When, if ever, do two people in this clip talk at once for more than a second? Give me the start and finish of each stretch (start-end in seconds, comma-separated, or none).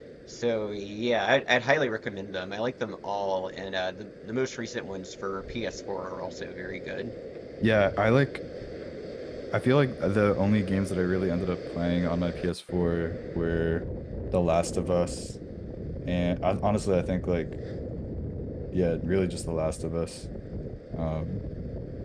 none